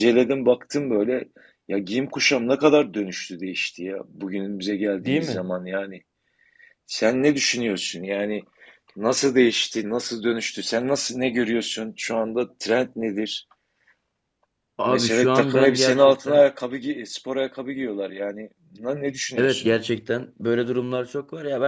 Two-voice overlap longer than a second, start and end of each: 14.9-16.4

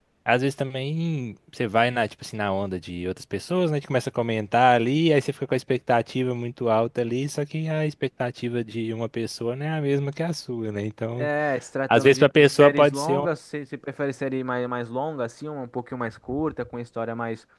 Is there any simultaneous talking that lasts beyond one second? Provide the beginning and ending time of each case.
11.9-13.3

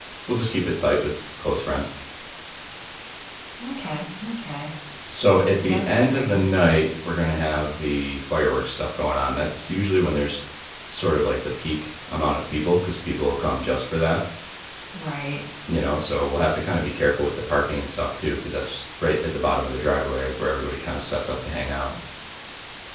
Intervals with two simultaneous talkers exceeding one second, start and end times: 5.5-6.8

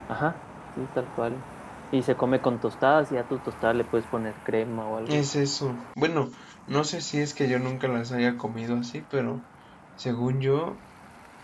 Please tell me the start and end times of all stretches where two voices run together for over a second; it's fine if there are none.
none

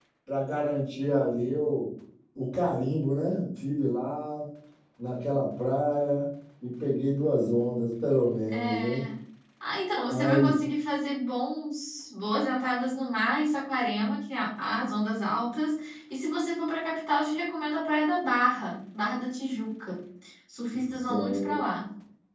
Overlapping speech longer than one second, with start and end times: none

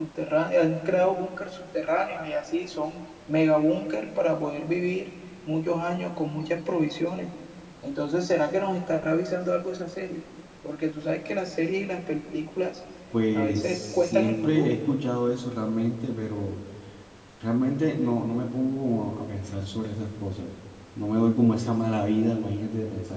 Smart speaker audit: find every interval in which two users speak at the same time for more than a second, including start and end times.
13.3-14.8

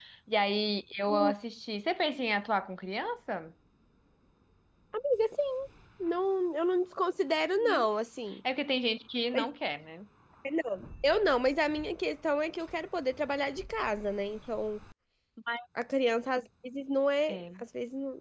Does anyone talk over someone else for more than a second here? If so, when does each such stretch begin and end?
none

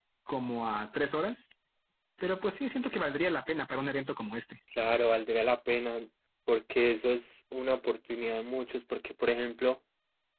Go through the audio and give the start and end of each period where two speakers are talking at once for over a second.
none

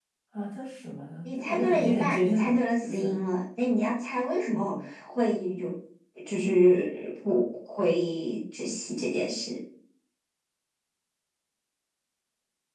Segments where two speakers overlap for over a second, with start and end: 1.2-3.1

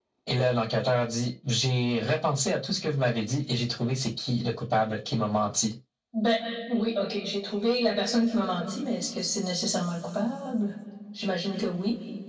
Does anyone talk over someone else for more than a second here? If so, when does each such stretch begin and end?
none

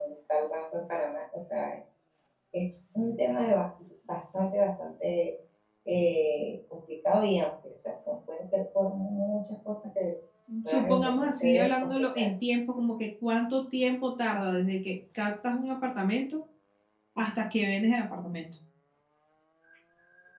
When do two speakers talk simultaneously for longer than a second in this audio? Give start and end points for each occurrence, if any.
10.7-12.2

